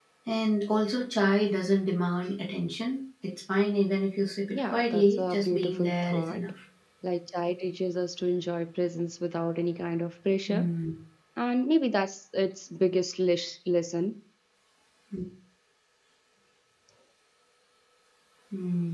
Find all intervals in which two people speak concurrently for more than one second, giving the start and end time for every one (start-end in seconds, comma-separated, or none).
4.5-6.4